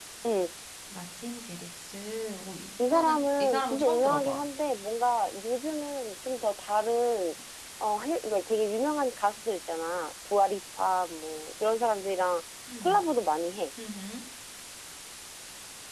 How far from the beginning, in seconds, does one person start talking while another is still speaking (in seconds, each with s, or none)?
2.8 s